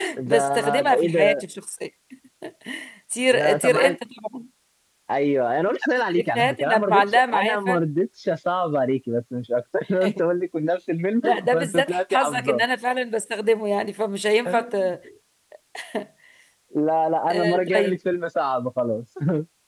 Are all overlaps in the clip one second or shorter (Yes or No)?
No